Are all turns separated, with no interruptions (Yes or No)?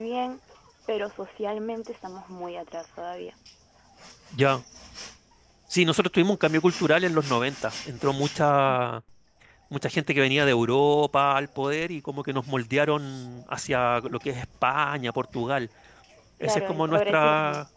No